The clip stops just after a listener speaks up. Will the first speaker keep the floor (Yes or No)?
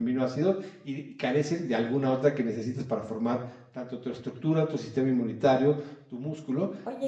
No